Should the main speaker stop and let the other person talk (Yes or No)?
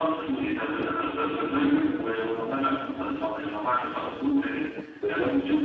No